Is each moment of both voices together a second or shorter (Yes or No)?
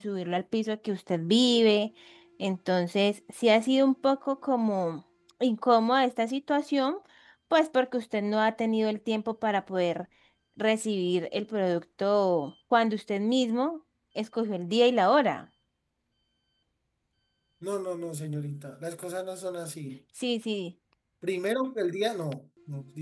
Yes